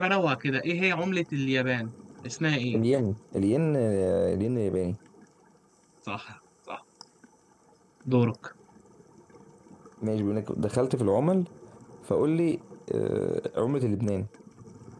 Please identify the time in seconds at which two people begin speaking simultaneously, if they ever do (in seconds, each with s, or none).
none